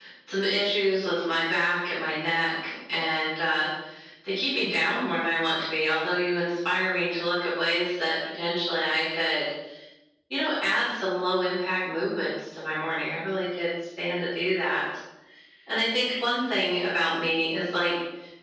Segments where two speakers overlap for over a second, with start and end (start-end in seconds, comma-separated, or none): none